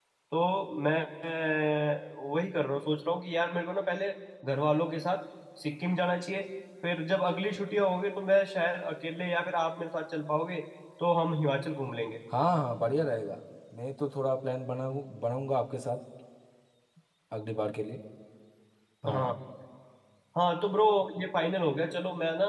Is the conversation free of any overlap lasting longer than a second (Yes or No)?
Yes